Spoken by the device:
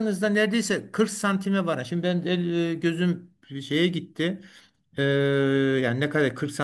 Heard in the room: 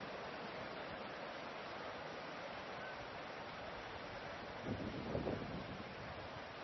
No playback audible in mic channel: Yes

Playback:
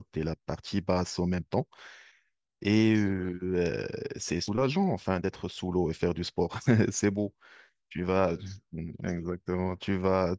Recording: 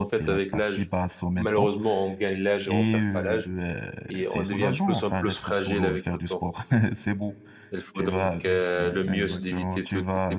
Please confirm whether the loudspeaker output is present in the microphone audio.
Yes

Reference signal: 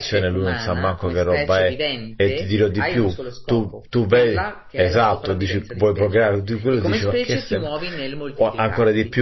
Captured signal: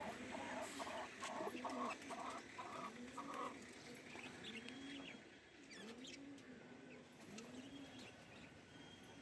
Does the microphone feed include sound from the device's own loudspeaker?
No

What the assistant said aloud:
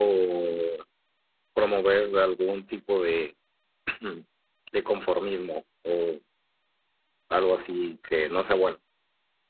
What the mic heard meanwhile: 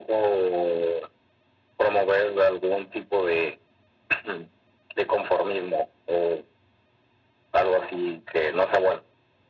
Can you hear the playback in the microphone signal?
Yes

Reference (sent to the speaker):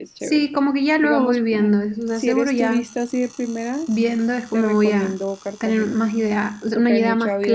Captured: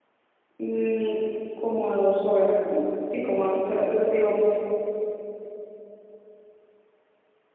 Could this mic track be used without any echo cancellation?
Yes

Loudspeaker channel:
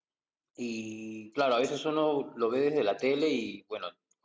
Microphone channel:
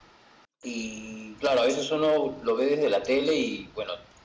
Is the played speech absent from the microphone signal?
No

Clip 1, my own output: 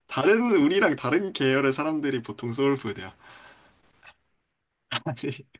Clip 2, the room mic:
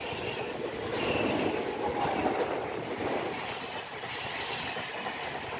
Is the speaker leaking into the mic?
No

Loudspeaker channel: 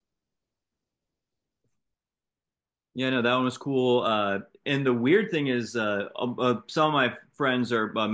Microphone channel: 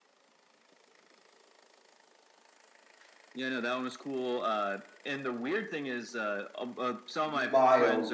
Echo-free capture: No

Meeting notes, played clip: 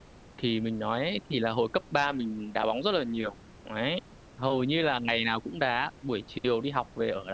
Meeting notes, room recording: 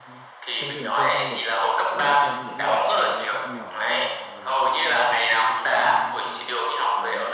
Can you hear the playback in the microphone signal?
Yes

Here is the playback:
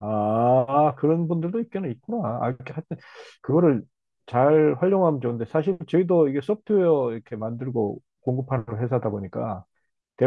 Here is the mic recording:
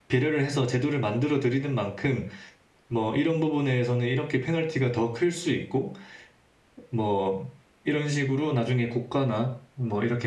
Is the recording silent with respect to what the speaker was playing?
Yes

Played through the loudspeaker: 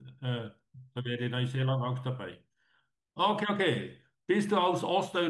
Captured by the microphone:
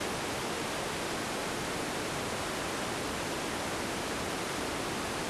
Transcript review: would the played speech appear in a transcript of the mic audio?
No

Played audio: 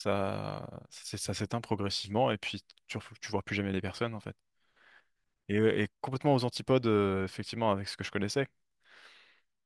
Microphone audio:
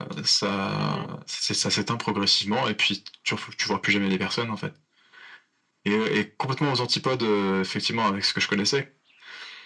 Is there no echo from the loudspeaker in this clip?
No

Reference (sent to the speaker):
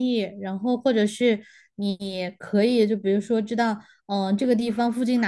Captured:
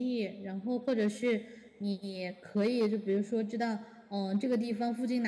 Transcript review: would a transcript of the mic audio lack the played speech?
No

